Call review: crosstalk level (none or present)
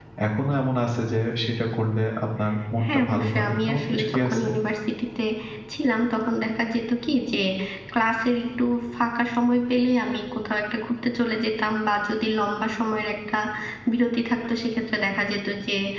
present